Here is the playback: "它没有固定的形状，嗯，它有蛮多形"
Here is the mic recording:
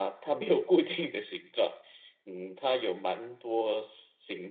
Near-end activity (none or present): none